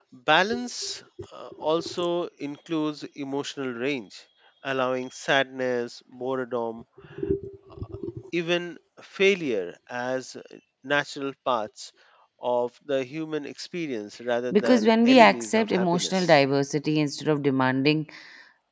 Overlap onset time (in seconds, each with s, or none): 14.5 s